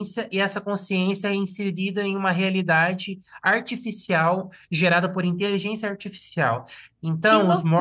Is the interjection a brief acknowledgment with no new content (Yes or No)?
Yes